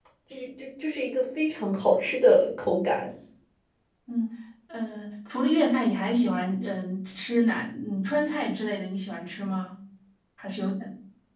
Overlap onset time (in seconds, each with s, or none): none